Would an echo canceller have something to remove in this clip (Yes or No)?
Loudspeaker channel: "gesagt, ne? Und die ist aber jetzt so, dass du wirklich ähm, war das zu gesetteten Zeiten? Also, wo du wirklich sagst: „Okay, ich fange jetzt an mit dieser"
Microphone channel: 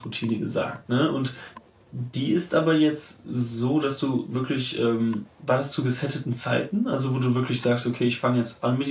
Yes